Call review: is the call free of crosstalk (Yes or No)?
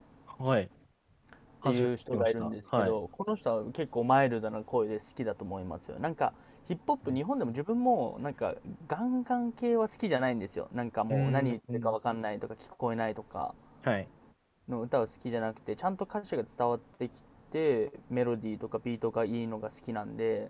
No